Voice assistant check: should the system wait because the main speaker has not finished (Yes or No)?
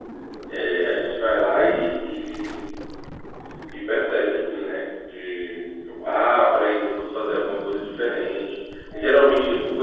Yes